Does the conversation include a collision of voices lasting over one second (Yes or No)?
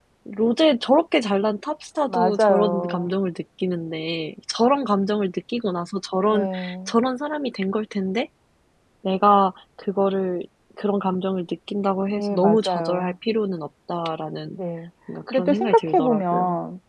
Yes